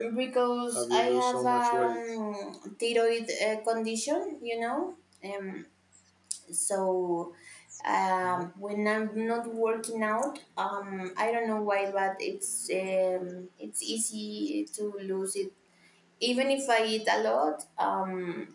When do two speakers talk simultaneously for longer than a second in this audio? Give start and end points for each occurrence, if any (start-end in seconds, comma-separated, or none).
0.7-2.0